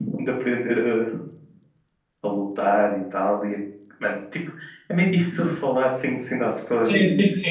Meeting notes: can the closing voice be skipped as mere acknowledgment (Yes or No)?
No